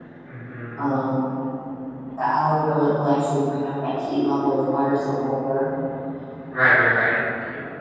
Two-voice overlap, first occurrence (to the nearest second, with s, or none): none